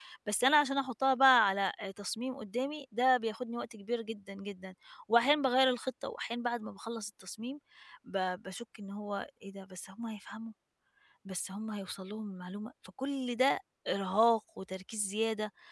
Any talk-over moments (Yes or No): No